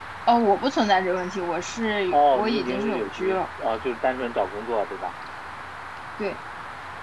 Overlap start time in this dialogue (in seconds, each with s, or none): 2.1 s